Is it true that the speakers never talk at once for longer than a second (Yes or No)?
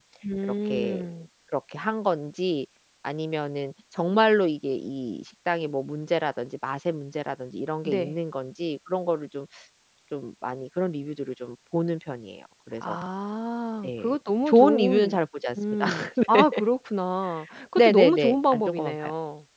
No